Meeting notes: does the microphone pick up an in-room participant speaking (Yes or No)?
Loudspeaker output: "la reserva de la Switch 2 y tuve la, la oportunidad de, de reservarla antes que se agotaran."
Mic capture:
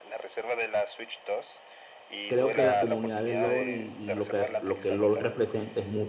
Yes